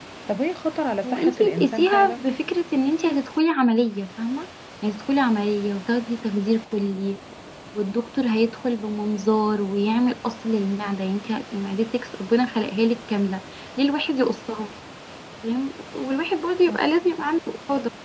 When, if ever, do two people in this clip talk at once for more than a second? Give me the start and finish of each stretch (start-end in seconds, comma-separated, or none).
1.1-2.3